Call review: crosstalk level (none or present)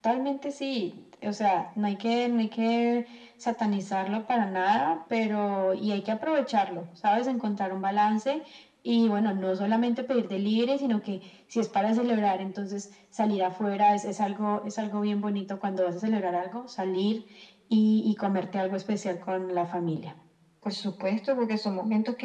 none